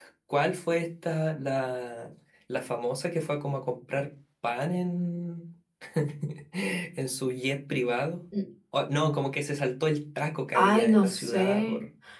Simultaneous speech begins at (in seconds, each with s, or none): 10.5 s